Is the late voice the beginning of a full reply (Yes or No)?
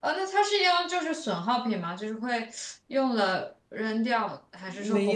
Yes